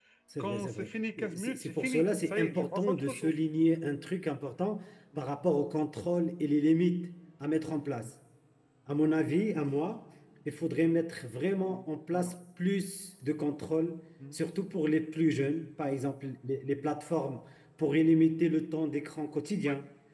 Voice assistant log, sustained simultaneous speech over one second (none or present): present